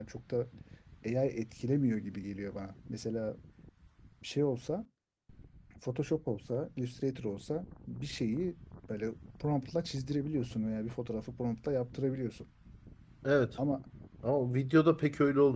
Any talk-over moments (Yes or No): No